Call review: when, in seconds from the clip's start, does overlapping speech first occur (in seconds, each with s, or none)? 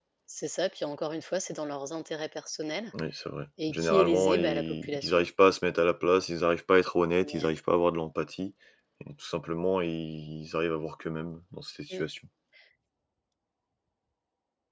3.7 s